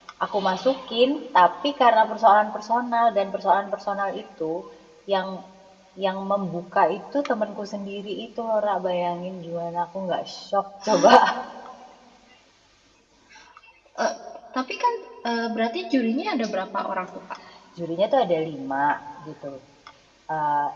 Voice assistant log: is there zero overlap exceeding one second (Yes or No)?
Yes